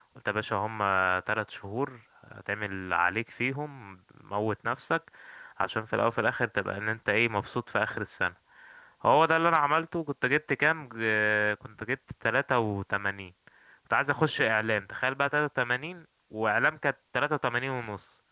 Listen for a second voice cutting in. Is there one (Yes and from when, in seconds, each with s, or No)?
No